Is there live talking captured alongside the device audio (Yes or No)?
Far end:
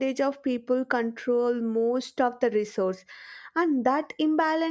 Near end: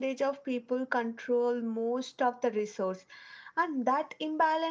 No